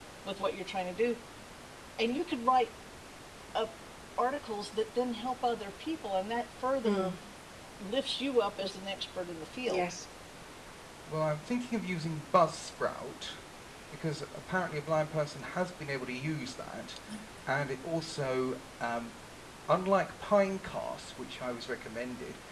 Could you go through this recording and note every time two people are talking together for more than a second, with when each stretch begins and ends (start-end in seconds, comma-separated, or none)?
none